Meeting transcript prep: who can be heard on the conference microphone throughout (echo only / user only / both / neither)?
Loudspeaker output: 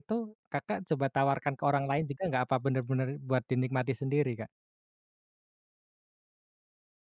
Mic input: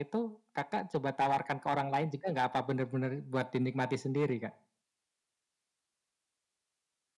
echo only